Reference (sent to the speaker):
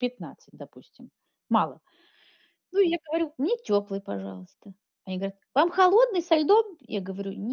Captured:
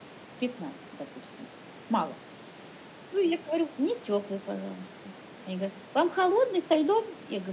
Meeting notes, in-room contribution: none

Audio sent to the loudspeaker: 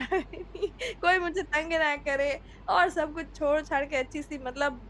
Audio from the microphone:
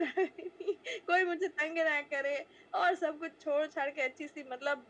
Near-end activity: none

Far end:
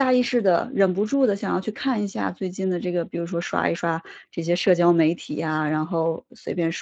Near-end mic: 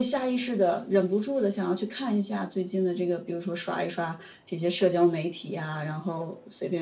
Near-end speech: none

